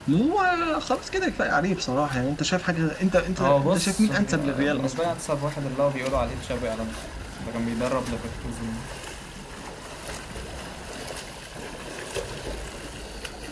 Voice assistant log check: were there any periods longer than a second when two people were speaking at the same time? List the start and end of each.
3.4-5.1

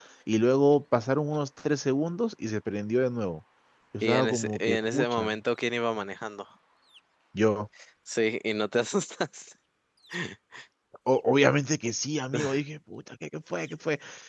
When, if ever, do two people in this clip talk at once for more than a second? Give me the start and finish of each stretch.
4.0-5.4

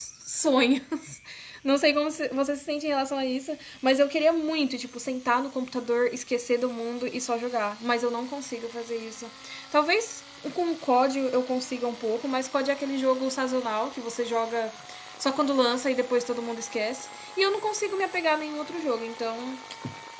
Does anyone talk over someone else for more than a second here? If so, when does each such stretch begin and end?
none

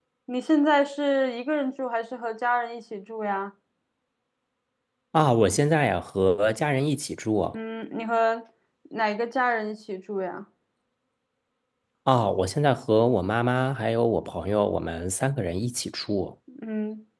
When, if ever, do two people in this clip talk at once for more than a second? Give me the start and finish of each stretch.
none

